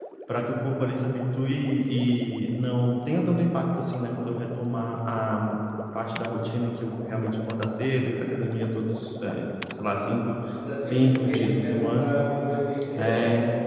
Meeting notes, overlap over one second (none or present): present